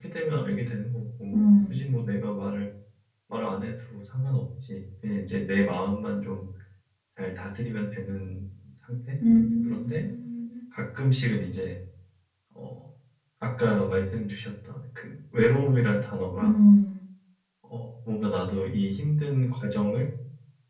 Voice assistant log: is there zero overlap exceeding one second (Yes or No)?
Yes